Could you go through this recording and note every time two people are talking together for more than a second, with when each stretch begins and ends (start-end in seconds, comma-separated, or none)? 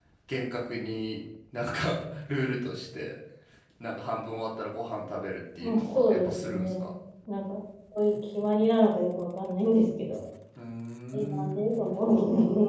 5.6-6.9